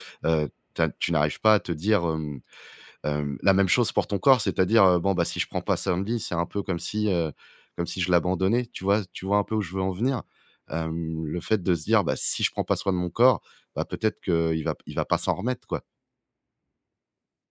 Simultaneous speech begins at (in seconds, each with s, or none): none